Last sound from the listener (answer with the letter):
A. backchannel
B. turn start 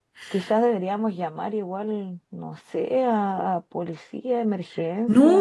B